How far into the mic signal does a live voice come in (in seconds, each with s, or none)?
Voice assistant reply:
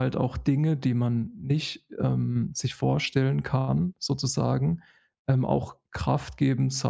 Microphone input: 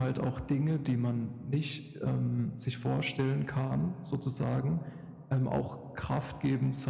none